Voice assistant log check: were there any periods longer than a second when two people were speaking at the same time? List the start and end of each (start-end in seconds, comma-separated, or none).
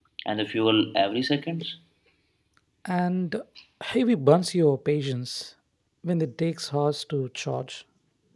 none